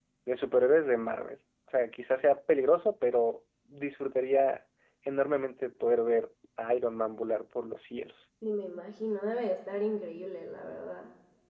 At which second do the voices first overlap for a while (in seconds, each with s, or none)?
none